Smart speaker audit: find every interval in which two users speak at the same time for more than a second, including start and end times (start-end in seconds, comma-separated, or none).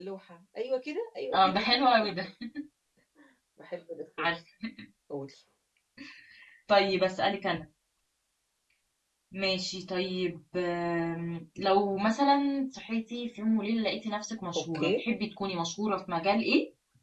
none